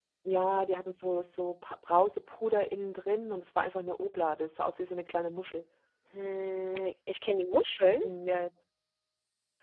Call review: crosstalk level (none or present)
none